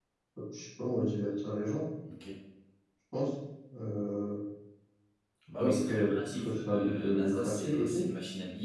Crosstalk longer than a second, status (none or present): present